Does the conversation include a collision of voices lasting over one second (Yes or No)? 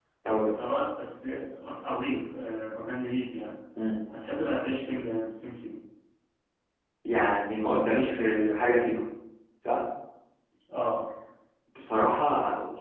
No